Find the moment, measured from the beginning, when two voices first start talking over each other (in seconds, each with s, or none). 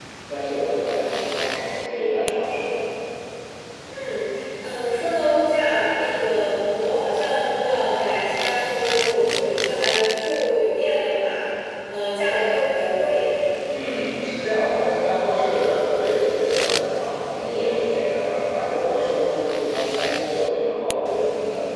none